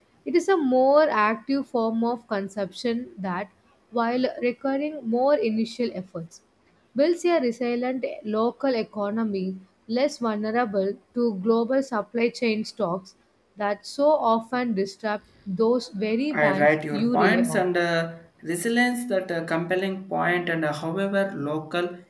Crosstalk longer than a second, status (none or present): present